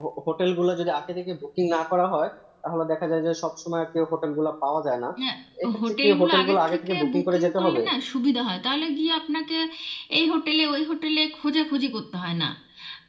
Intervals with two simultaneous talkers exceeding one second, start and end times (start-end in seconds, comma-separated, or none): 5.9-7.8